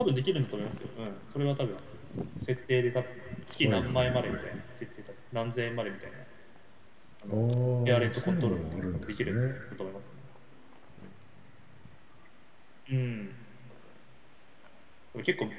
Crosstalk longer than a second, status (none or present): present